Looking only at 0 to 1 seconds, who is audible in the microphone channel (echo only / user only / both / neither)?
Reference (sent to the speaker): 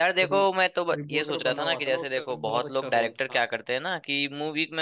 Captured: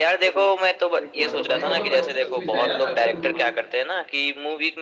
echo only